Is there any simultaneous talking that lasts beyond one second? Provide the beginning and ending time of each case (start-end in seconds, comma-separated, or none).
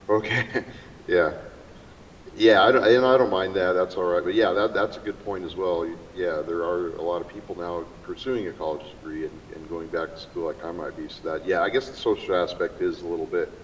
none